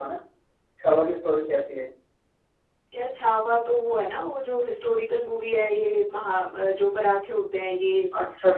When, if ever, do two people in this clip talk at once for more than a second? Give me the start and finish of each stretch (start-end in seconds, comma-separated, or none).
none